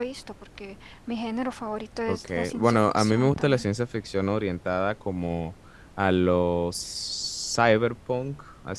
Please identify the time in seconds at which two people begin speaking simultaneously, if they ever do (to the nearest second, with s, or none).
2 s